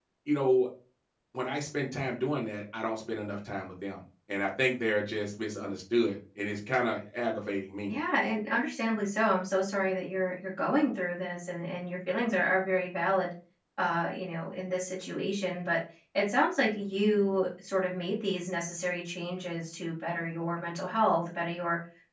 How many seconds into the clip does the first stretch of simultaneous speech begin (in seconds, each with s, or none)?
none